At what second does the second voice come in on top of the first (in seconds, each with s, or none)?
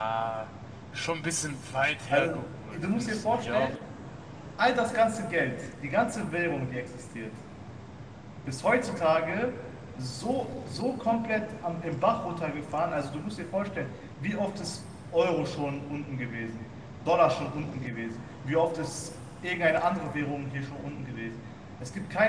2.1 s